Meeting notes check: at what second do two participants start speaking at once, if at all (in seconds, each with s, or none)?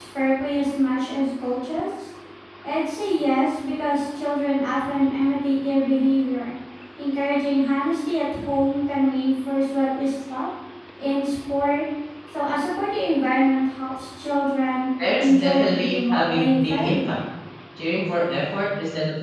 15.0 s